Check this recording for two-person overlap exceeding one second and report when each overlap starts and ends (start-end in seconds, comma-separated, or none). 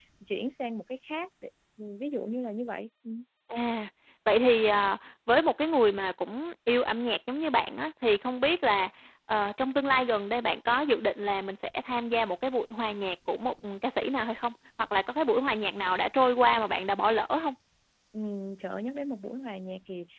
none